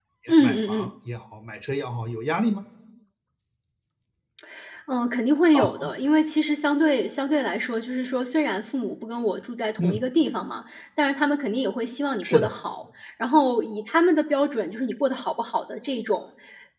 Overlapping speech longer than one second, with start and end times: none

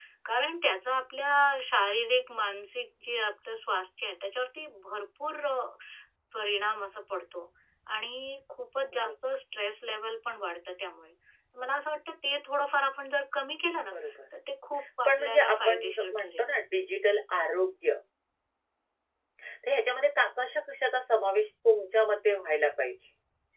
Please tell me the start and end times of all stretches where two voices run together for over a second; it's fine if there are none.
15.1-16.5

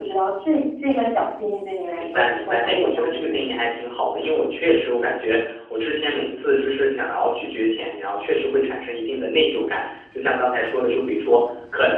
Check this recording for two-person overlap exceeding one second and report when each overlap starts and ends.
2.0-3.4

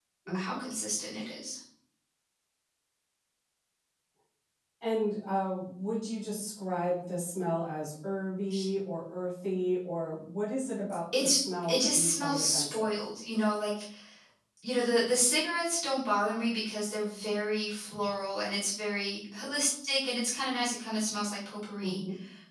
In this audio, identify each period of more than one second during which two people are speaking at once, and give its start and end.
11.2-12.9

